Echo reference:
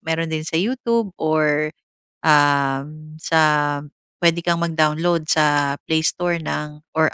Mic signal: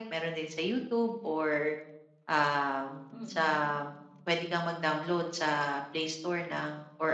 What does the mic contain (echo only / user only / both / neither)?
both